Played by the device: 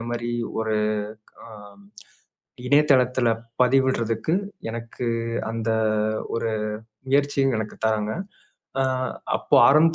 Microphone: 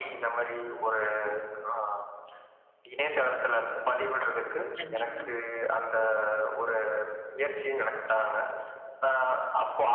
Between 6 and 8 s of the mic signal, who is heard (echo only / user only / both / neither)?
echo only